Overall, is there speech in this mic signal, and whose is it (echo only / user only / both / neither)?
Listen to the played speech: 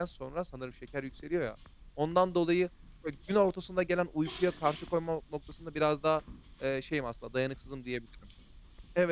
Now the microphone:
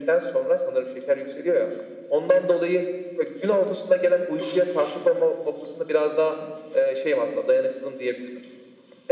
echo only